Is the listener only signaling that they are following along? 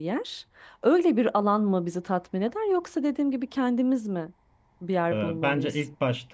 No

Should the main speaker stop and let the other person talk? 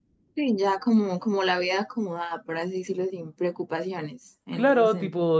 Yes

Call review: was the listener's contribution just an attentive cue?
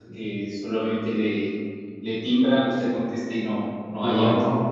No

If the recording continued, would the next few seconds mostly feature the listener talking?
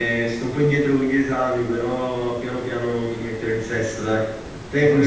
No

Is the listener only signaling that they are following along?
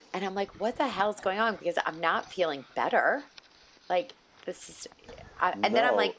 Yes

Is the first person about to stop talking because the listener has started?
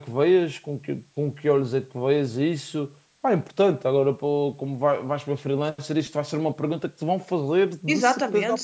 Yes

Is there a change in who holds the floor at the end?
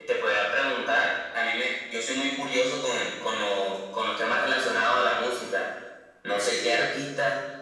No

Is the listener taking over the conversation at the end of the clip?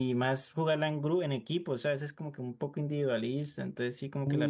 Yes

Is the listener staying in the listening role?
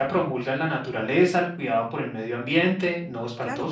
No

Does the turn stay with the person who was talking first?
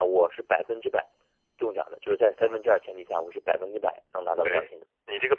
No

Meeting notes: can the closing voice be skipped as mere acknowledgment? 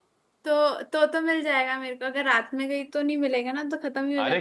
No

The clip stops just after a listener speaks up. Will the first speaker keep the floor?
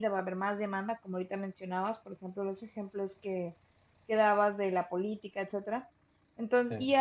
Yes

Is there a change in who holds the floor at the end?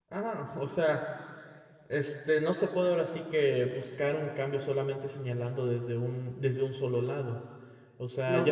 No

